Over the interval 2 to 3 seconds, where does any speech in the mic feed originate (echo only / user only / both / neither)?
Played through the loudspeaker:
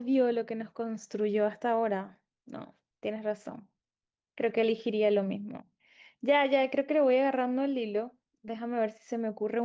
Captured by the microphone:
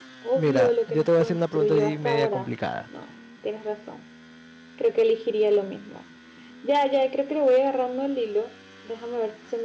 both